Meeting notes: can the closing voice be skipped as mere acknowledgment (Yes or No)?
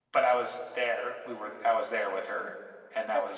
No